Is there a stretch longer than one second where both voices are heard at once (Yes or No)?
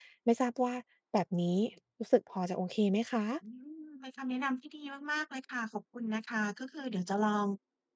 No